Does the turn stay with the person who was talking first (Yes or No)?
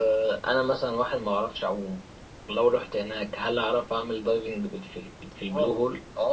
No